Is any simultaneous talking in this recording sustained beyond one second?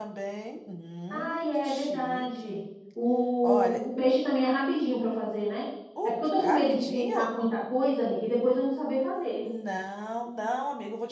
Yes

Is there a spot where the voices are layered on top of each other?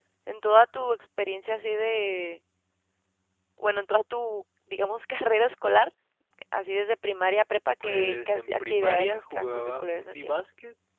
Yes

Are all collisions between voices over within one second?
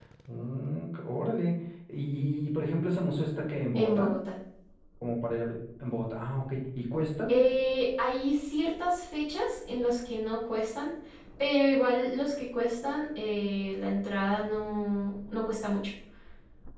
Yes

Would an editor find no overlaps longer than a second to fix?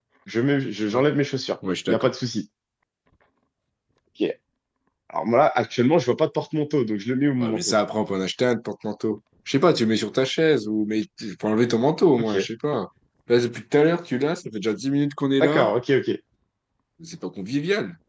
Yes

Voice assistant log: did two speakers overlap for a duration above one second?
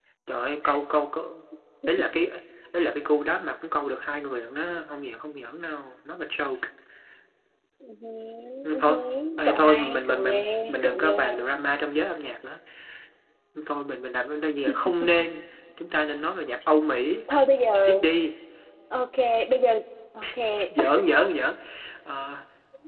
Yes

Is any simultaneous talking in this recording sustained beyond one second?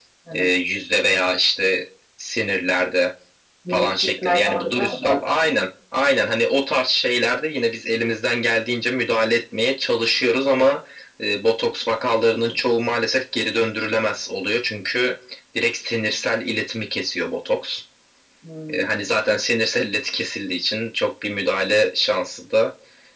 Yes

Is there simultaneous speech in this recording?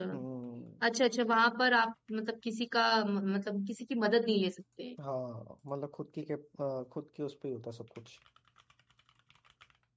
No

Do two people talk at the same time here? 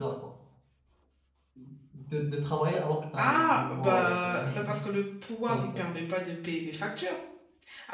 Yes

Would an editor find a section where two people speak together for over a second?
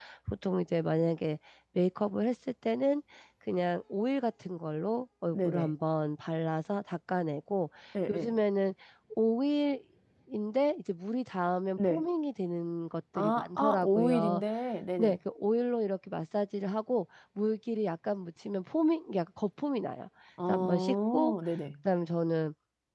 Yes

